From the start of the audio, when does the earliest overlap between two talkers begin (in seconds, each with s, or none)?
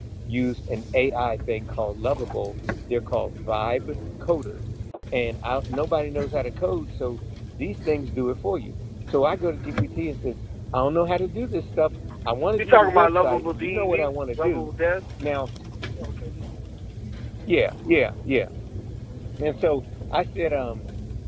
12.6 s